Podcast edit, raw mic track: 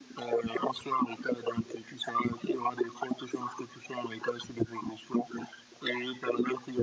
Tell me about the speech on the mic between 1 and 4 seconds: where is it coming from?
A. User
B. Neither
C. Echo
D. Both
C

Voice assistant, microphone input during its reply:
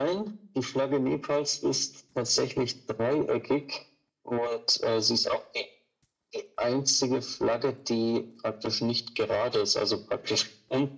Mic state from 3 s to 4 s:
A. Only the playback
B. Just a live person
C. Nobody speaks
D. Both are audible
A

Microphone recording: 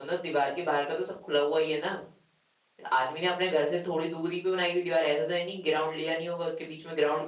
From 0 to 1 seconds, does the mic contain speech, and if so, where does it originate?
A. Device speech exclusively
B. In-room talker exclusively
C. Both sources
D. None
B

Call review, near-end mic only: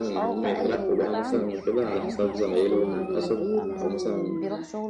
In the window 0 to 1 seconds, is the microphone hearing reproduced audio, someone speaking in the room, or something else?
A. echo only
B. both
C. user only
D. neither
B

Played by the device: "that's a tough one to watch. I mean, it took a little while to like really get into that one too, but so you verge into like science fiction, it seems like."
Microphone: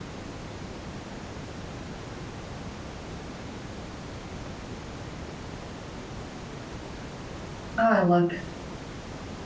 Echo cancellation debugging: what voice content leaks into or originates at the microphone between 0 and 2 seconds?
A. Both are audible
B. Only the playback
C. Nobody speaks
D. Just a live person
C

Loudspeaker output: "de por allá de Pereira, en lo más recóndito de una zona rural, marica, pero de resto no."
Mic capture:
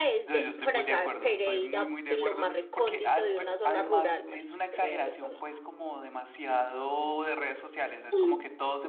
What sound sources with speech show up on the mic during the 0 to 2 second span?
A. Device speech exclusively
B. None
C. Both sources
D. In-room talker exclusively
C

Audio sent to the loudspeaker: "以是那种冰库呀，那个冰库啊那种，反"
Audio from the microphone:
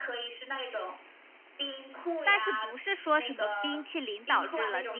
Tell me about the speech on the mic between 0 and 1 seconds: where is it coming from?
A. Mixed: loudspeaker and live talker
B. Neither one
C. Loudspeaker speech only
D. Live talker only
C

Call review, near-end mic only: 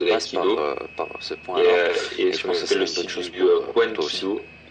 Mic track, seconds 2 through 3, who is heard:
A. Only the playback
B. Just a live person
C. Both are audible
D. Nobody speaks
A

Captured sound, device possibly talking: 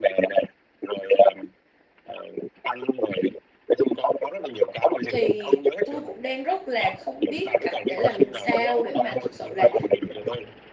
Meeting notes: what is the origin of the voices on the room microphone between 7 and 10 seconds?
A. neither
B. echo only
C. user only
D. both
D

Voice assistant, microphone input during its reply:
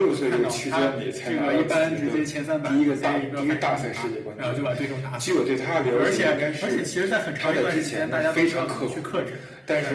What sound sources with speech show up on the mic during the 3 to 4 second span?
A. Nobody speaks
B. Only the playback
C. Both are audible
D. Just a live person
B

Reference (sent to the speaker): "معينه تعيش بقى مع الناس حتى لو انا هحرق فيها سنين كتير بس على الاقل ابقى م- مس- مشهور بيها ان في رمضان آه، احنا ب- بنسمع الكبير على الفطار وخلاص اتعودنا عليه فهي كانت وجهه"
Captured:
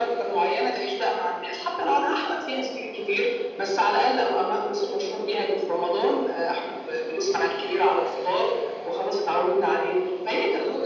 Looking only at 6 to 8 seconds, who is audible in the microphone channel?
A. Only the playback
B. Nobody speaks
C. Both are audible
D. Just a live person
A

